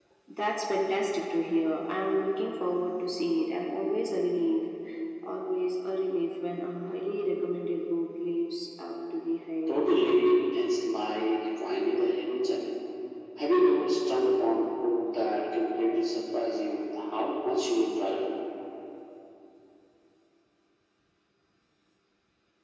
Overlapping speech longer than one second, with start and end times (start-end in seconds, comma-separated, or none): none